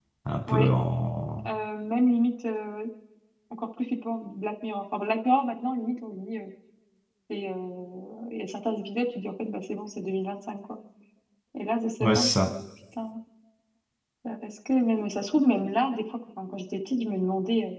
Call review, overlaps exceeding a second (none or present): none